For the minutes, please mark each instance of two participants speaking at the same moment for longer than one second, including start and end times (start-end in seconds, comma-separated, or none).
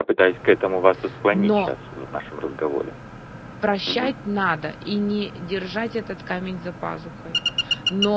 none